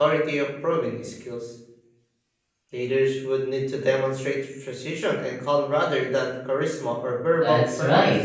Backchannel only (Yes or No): No